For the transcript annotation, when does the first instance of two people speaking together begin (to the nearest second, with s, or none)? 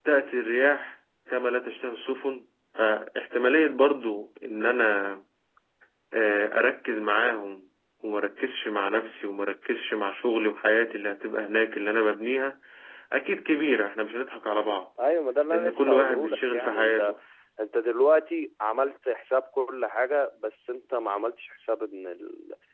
16 s